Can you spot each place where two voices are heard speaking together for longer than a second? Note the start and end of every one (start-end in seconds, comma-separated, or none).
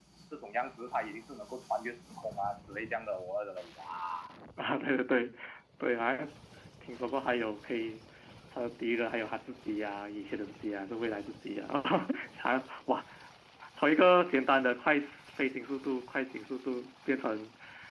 none